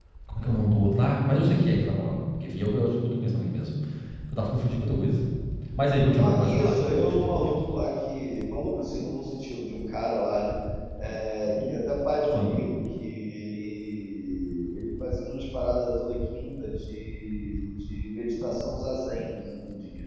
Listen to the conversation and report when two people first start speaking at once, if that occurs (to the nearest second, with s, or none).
6 s